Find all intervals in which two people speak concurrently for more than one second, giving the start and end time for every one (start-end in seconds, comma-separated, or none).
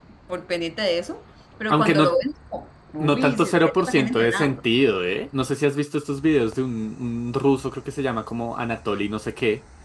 3.0-4.6